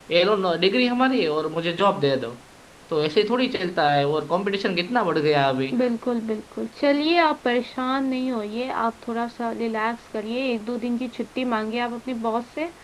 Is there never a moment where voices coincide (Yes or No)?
Yes